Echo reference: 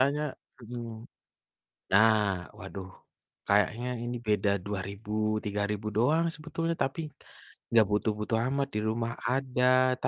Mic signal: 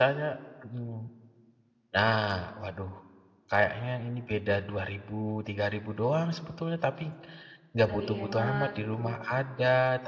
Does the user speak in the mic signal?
Yes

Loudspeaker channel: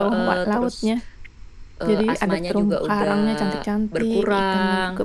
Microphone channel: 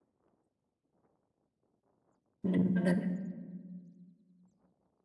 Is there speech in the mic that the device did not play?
Yes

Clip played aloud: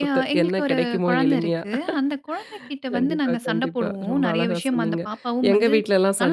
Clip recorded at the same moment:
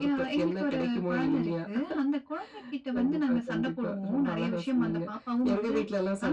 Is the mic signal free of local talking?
Yes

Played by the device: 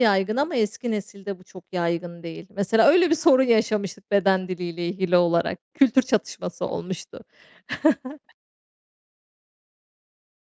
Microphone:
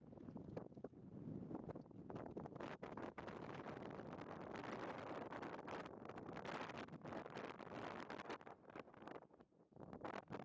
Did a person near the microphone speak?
No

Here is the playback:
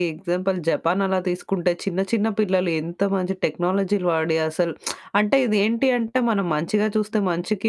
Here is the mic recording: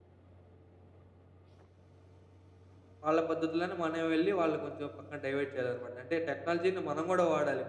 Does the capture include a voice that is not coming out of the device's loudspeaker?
Yes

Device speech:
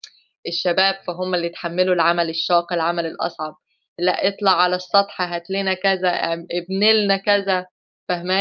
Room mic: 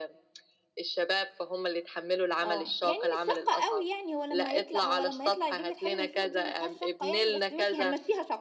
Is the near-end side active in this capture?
Yes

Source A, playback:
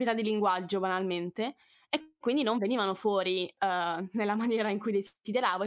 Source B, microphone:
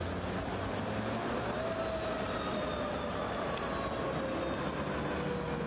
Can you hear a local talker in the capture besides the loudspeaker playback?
No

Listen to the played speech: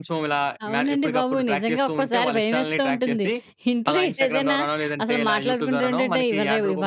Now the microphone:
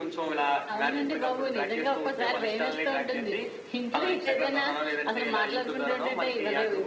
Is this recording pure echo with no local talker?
Yes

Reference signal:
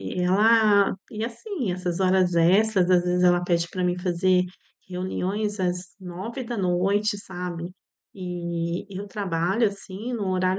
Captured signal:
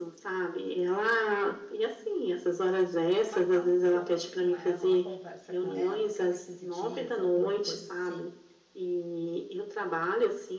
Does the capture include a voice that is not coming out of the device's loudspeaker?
Yes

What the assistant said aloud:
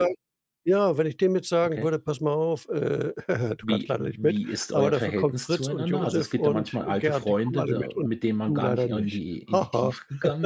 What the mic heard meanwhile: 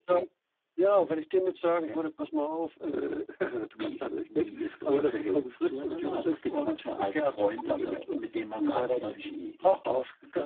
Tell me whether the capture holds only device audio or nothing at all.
Yes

